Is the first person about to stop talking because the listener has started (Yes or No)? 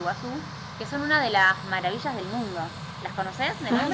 Yes